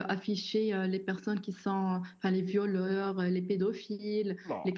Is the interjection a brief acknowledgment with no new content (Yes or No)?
Yes